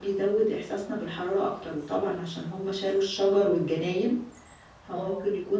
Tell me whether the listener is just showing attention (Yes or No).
Yes